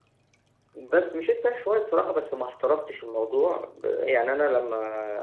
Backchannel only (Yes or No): Yes